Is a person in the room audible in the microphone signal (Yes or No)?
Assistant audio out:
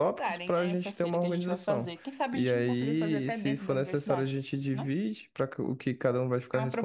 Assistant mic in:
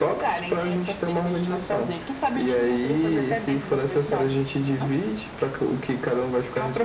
No